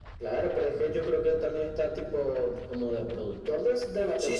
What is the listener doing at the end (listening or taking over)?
taking over